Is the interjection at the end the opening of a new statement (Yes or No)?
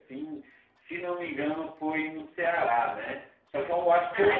No